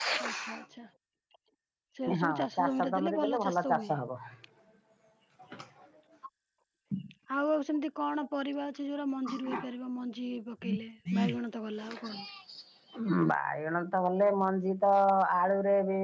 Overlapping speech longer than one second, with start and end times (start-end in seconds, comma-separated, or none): 2.2-3.9